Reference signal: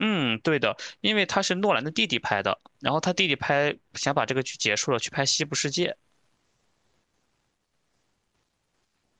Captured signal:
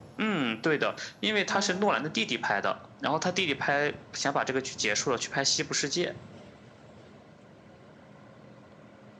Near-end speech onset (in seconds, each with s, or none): 1.5 s